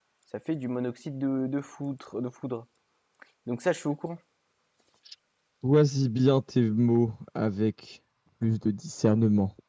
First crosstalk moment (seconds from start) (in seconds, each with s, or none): none